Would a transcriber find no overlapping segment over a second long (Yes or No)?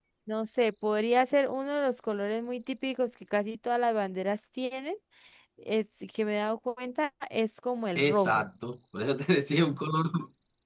Yes